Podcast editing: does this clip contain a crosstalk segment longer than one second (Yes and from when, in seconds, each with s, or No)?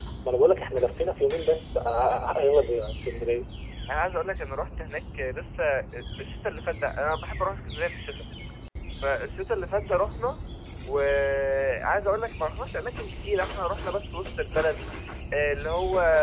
No